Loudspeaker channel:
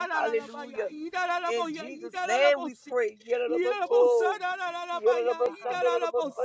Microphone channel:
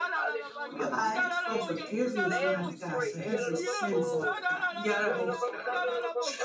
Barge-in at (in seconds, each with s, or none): 0.6 s